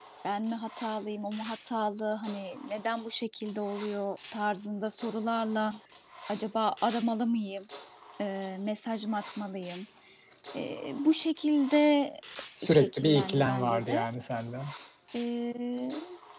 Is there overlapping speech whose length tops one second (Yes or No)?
Yes